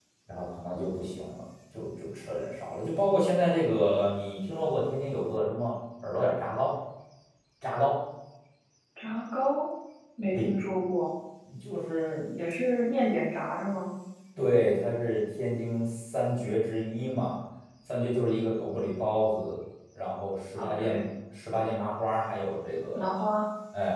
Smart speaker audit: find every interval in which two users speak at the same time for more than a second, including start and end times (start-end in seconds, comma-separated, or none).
none